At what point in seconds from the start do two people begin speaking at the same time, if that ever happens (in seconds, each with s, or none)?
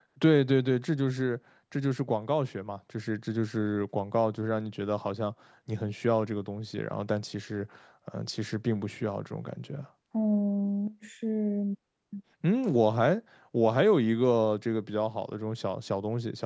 none